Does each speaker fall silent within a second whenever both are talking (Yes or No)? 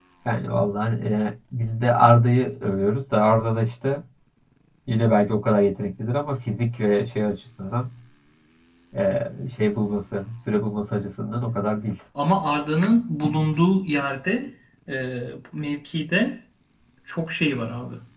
Yes